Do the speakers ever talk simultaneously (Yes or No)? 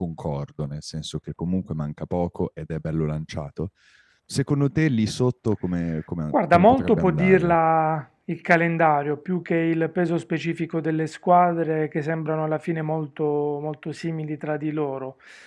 Yes